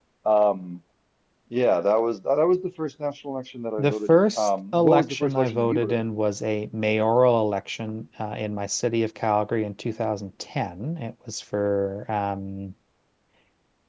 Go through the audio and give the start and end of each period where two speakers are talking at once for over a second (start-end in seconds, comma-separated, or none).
3.8-6.0